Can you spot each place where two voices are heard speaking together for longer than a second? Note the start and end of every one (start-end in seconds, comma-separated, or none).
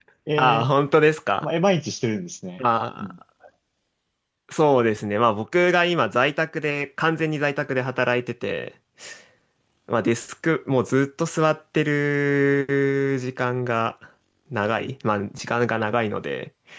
none